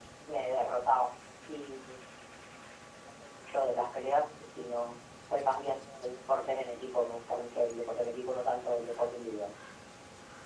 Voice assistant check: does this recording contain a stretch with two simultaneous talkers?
No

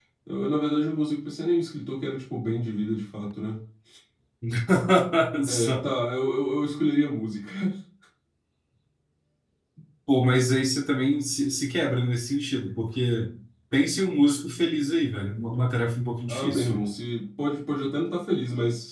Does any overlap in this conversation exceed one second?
No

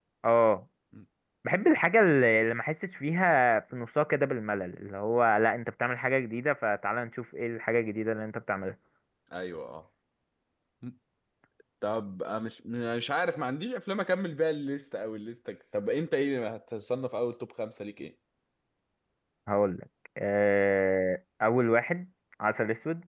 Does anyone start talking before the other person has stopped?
No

